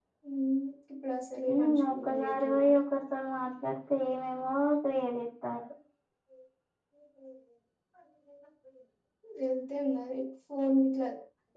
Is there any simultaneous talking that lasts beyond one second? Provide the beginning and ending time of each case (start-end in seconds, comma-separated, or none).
1.5-2.8